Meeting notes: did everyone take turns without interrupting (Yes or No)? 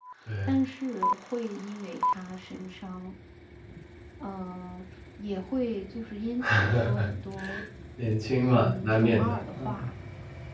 No